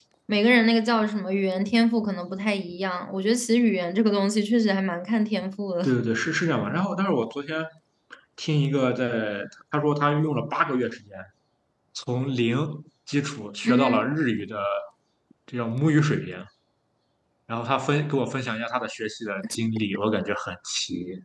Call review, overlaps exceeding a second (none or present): none